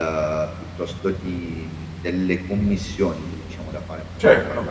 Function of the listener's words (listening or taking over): listening